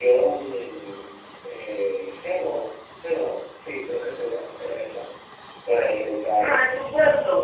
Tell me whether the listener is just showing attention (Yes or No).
No